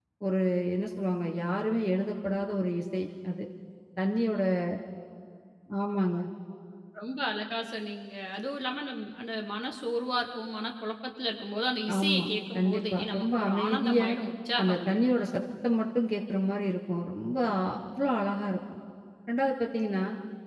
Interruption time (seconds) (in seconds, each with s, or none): 12.0 s